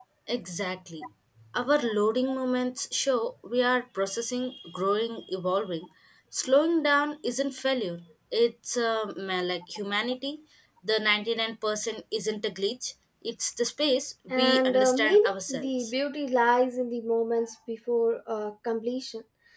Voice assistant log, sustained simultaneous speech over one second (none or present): present